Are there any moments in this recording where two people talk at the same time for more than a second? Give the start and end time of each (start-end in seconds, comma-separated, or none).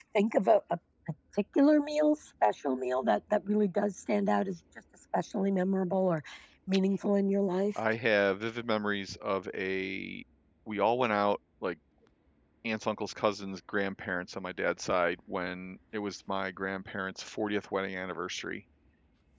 none